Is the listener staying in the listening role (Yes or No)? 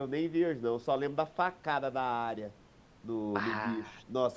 Yes